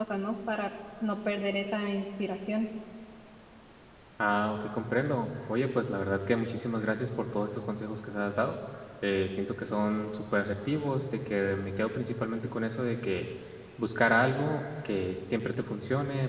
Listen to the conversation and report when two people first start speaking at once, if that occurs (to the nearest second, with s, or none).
none